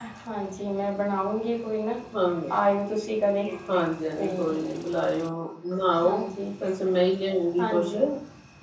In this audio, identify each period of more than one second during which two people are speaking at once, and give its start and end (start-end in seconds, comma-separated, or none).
none